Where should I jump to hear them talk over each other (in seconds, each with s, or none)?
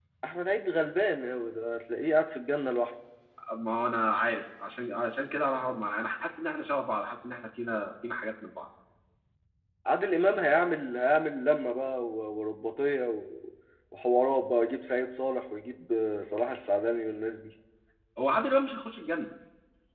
none